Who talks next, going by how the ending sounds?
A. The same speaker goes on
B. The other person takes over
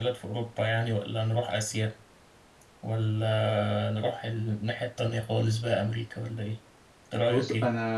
B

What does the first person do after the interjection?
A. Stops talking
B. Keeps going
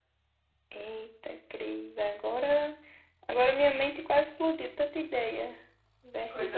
A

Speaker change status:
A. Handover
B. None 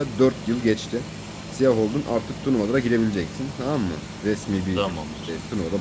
B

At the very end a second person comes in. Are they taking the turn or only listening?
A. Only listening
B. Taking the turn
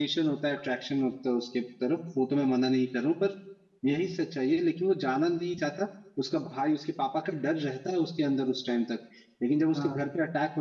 A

